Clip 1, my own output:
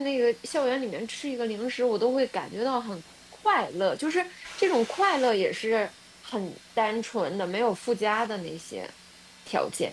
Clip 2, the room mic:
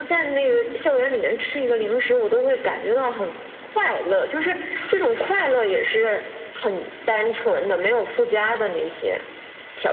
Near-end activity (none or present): none